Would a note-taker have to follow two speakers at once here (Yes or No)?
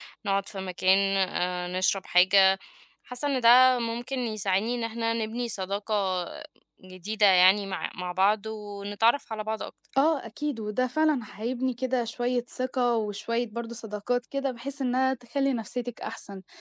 No